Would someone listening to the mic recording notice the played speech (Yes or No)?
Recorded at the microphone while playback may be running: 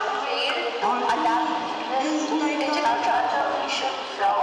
Yes